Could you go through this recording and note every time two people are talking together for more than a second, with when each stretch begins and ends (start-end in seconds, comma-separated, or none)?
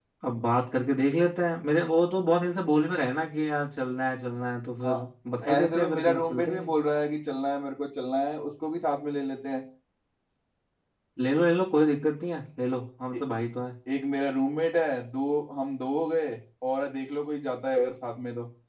5.5-6.7